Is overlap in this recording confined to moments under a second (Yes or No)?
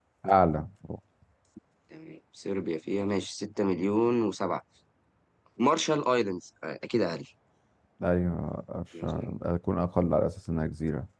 Yes